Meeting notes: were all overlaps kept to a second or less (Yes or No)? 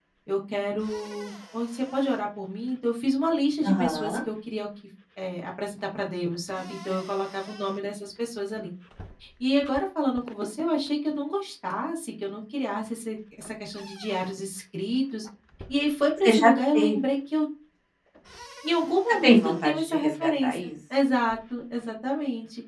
No